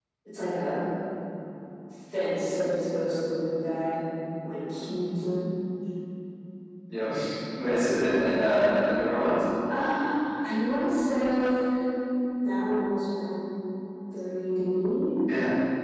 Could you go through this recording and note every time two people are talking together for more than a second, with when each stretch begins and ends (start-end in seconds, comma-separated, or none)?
none